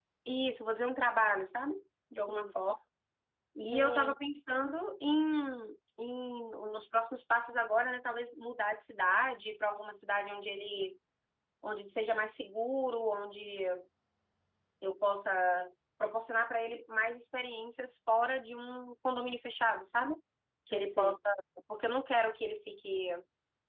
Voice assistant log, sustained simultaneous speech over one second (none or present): none